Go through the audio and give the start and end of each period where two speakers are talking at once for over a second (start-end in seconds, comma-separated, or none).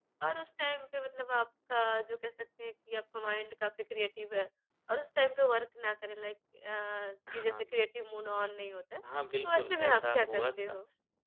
9.4-10.7